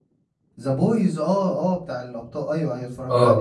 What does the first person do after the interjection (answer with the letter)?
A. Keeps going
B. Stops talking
B